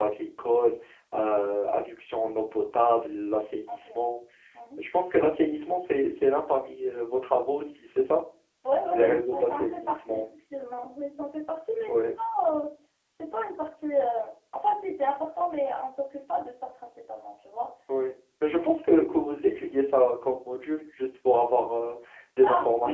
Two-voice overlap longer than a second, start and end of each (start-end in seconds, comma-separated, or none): 8.9-10.2